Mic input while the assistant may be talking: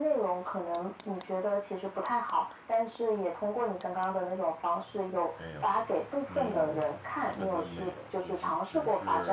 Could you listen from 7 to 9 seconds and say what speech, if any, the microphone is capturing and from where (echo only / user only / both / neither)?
both